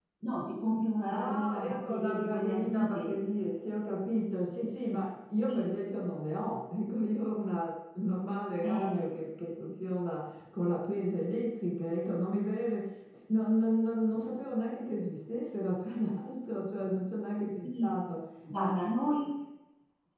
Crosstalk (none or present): present